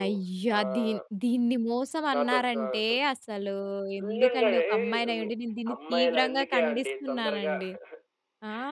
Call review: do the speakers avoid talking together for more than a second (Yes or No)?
No